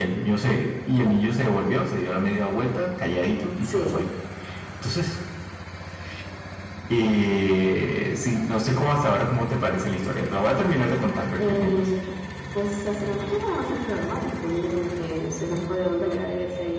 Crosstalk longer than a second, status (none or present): none